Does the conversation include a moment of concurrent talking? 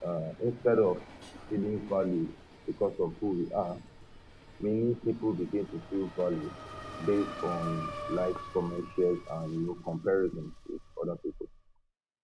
No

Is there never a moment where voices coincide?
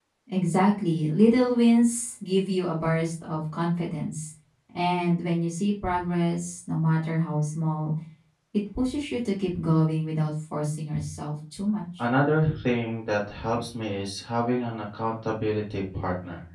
Yes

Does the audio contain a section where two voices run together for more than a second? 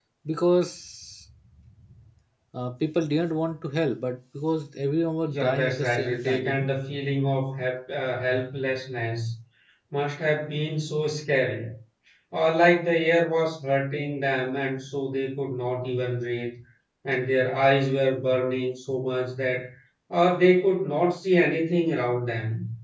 Yes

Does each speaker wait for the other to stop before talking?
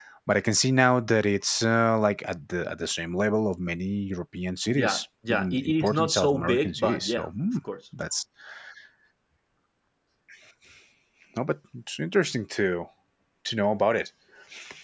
No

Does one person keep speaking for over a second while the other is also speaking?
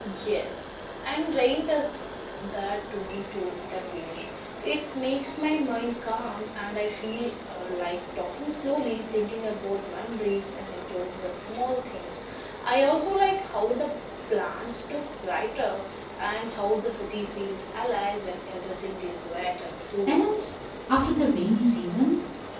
No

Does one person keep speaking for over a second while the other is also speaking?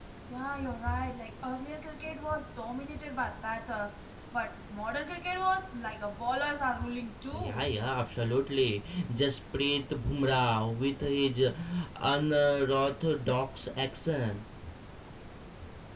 No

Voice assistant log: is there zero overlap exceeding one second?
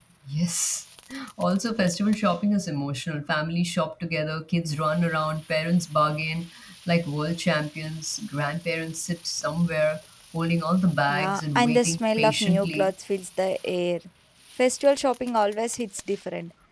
No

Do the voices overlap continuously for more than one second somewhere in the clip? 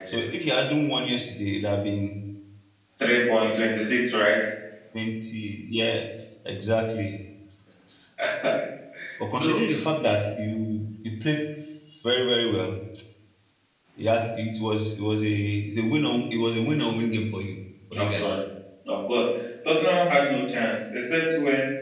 No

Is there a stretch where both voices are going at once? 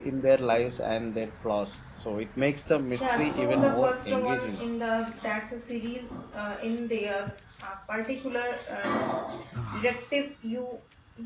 Yes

